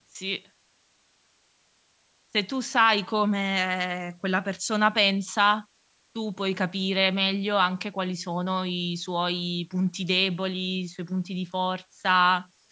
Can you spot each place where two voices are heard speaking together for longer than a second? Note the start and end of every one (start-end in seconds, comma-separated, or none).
none